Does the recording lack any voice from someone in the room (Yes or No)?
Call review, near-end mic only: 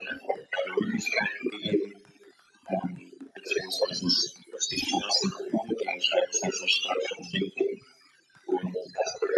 Yes